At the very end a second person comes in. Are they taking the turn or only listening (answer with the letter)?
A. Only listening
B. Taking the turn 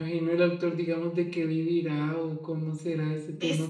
B